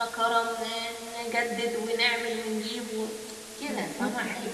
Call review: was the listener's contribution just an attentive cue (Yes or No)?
No